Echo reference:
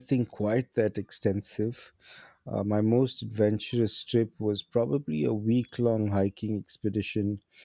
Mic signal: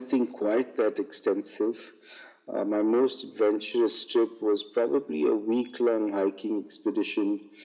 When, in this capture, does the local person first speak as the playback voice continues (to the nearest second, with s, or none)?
none